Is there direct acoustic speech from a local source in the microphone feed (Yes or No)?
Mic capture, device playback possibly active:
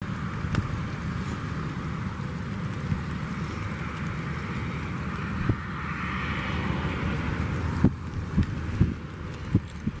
No